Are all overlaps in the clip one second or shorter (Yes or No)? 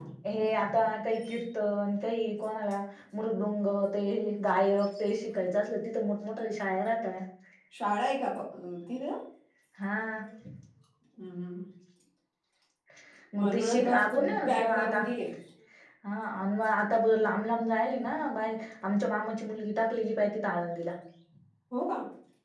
No